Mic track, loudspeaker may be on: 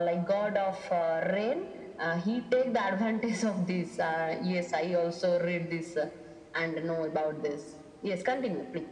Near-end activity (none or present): none